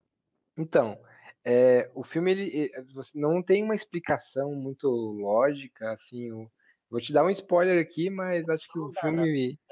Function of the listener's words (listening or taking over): taking over